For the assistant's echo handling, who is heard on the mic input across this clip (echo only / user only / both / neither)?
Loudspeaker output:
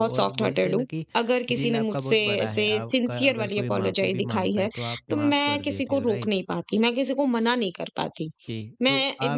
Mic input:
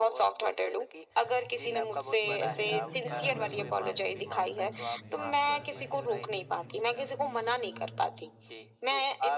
both